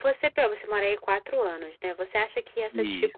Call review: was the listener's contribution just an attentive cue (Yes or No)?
Yes